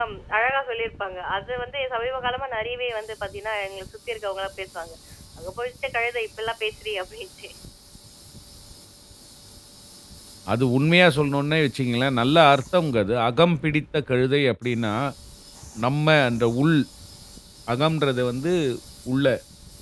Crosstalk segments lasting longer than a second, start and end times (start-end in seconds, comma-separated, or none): none